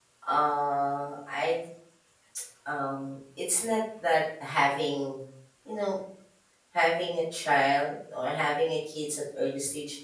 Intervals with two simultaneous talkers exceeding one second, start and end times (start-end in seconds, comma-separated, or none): none